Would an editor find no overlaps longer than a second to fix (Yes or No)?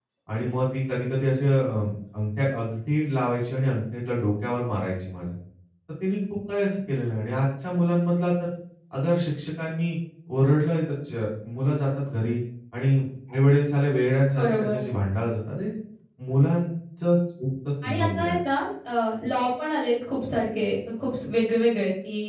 Yes